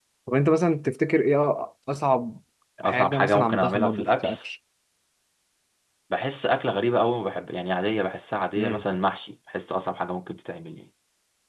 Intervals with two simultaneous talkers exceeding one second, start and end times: 2.8-4.3

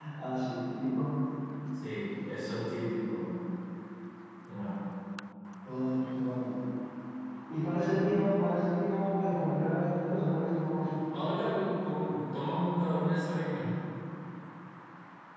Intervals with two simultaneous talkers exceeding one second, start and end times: none

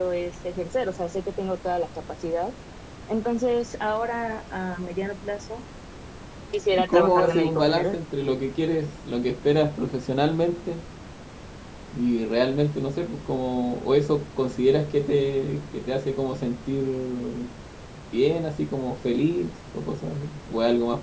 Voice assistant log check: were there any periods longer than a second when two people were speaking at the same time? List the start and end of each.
6.7-8.0

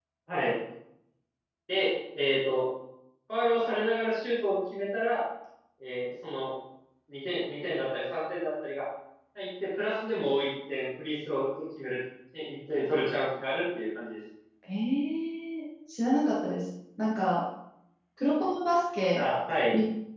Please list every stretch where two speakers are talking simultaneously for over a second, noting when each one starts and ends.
none

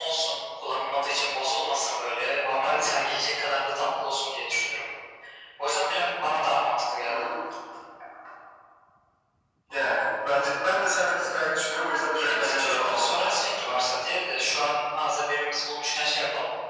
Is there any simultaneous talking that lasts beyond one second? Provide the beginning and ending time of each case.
12.2-13.4

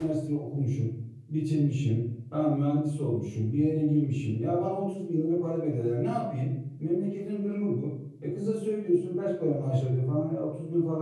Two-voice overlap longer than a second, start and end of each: none

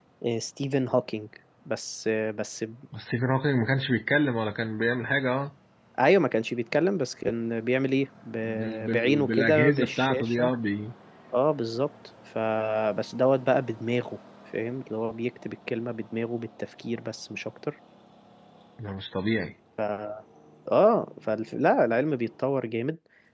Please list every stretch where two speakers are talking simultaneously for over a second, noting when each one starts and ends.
8.4-10.5

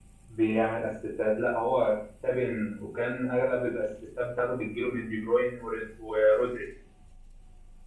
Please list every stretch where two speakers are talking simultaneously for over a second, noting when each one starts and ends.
none

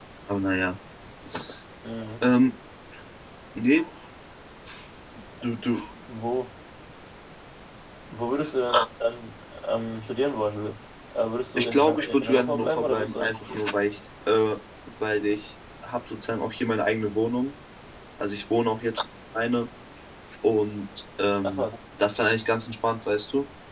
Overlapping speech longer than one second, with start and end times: 11.6-13.6

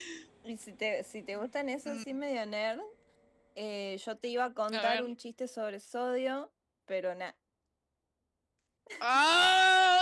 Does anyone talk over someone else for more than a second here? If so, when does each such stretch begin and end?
none

